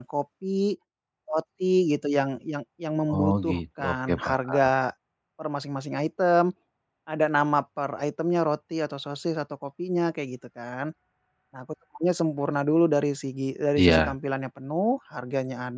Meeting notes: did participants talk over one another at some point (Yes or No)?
Yes